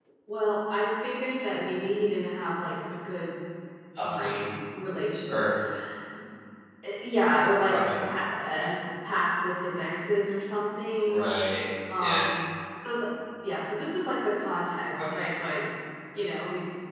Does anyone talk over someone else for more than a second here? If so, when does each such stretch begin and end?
none

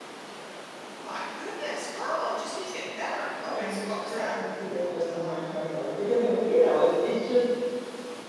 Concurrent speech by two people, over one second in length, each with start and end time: 3.1-4.4

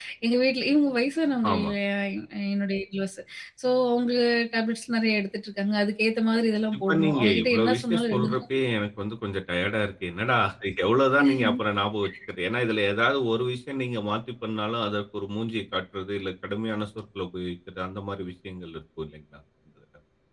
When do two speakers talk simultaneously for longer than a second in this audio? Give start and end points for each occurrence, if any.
6.8-8.4

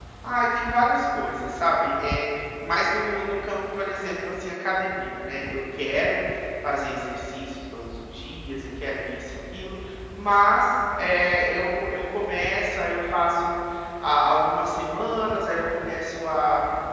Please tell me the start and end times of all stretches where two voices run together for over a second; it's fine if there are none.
none

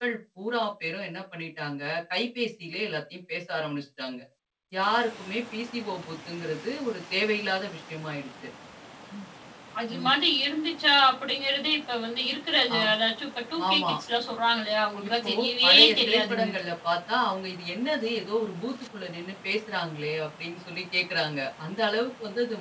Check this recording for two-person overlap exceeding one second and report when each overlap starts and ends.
15.1-16.5

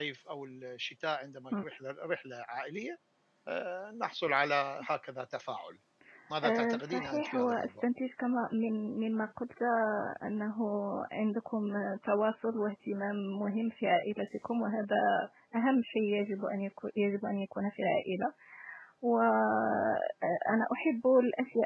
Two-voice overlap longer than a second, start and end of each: 6.4-7.8

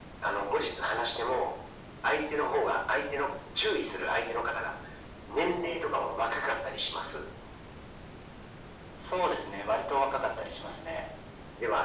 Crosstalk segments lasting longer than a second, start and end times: none

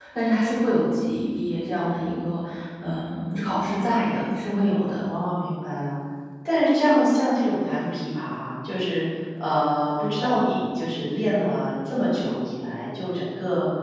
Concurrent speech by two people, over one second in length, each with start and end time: none

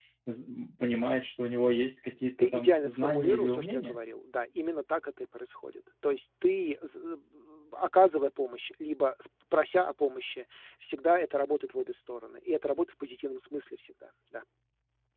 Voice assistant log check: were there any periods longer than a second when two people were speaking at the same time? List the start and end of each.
2.4-4.0

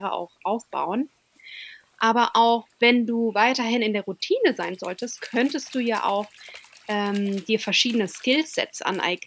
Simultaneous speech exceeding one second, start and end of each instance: none

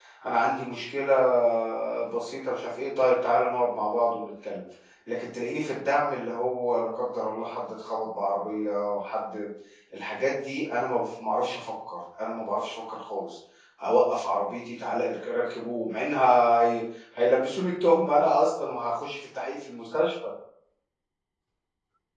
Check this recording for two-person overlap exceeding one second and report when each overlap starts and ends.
none

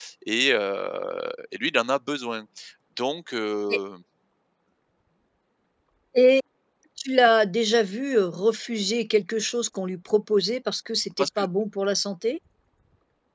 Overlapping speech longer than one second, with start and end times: none

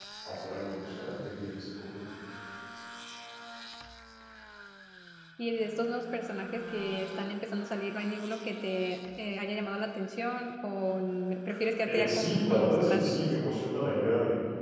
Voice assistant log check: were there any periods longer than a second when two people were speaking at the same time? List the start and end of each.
11.9-13.3

